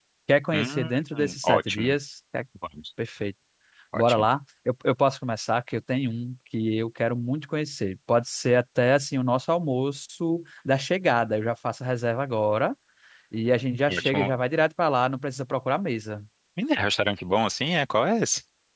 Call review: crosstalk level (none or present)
present